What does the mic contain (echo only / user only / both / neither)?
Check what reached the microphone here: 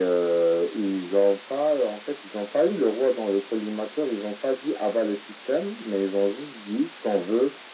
echo only